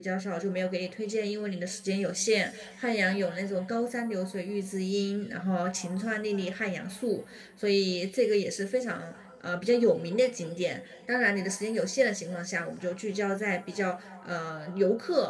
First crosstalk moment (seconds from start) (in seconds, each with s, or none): none